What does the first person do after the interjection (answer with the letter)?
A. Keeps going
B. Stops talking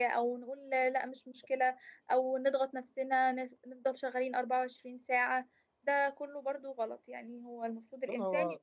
A